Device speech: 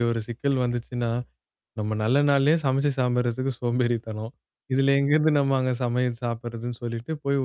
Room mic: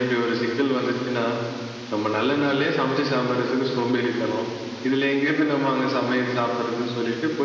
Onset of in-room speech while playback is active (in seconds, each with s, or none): none